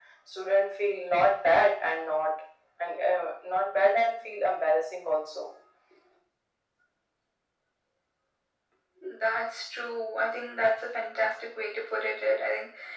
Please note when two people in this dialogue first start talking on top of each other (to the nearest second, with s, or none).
none